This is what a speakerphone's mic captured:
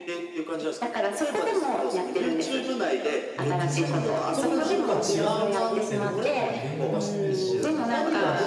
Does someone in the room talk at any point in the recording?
Yes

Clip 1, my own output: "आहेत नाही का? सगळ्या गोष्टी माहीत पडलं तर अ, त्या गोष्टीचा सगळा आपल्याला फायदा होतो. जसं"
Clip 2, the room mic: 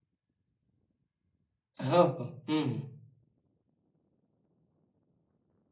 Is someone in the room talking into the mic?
Yes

